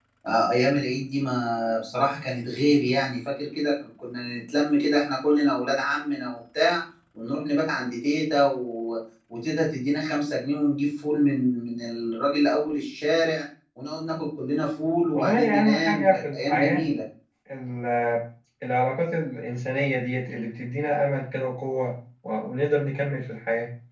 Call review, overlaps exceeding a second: present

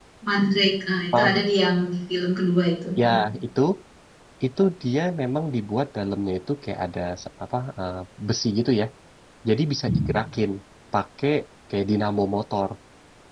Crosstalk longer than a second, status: none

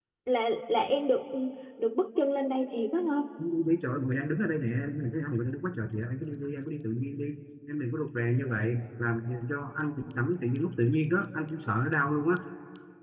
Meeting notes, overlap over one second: none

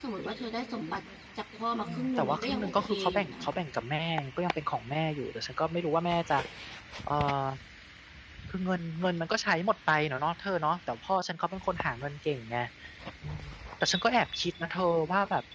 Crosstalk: present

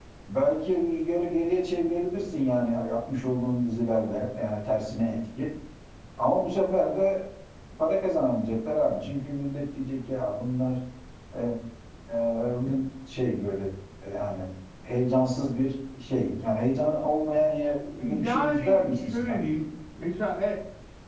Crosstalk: present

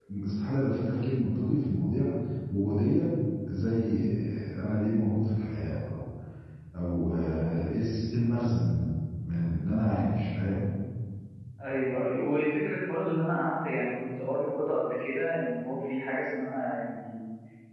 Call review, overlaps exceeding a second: none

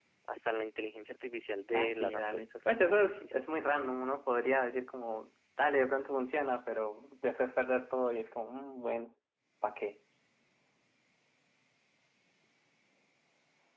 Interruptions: present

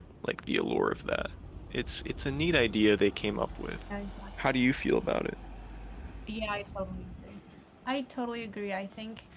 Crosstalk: none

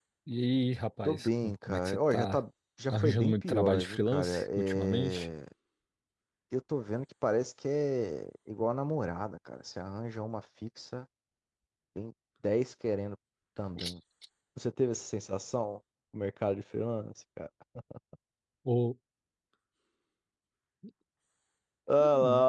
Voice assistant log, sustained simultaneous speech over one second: present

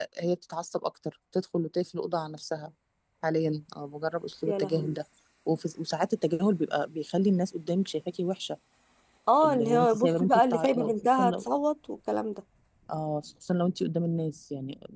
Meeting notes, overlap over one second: present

